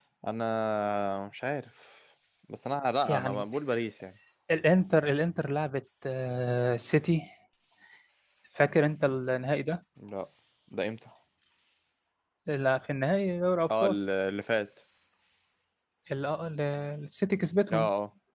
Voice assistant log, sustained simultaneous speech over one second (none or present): none